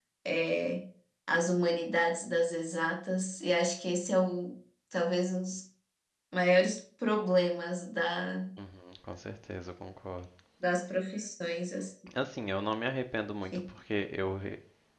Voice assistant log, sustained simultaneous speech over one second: none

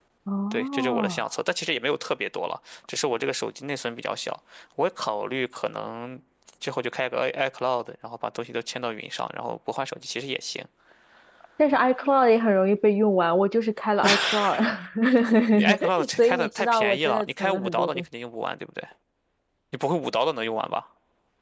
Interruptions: present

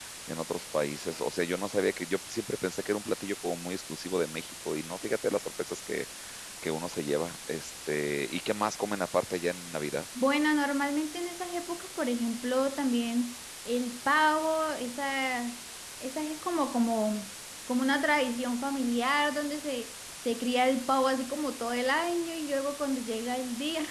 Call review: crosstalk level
none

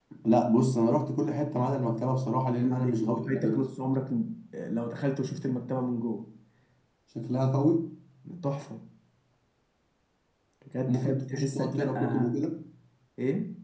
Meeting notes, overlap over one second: present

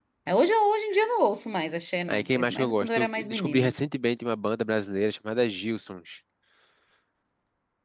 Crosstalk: present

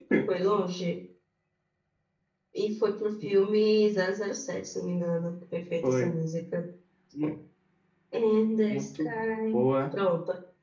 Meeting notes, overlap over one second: none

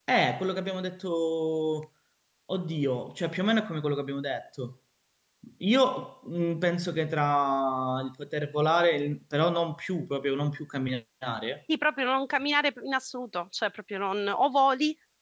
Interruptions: none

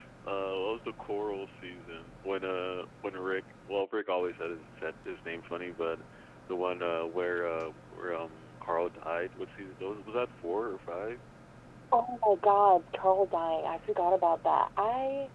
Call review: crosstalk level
none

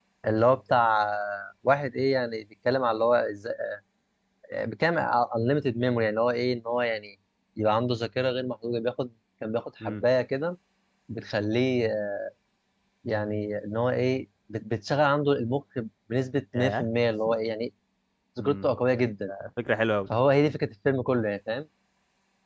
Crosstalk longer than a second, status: none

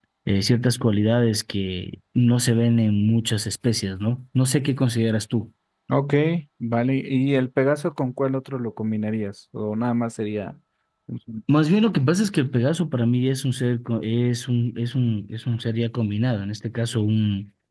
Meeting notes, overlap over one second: none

